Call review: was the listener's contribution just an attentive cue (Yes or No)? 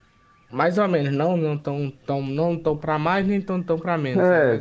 No